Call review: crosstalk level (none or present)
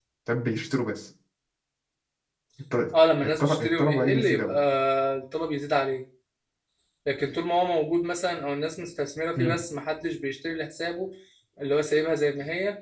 present